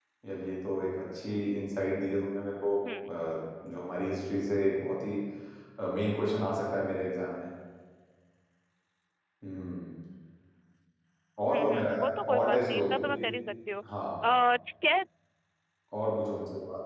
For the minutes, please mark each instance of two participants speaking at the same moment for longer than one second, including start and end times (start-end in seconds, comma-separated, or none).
11.4-13.3